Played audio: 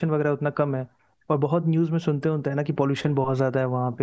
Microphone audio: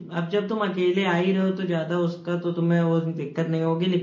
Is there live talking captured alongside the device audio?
Yes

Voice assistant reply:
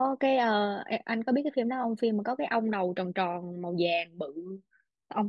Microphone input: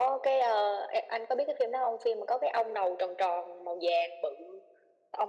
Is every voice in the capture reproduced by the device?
Yes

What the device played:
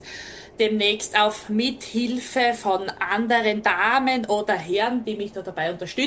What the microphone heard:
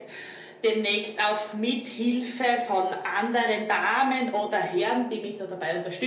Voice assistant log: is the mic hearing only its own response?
Yes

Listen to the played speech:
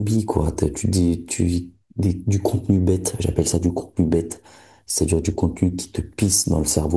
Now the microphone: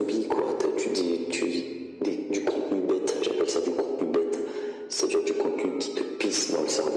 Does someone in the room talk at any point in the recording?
No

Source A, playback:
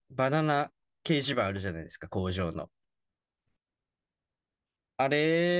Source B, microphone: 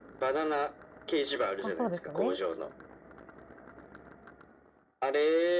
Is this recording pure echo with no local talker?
No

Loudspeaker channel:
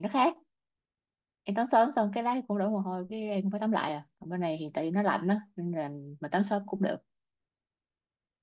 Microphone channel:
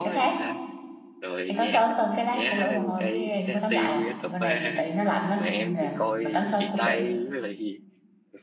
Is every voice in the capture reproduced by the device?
No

